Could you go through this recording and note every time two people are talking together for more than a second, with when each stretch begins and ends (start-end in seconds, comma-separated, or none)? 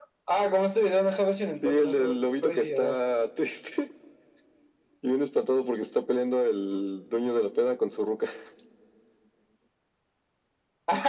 1.6-3.0